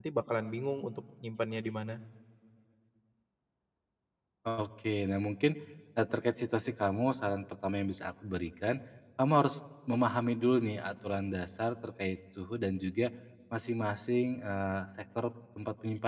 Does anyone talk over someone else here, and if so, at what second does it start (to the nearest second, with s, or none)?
none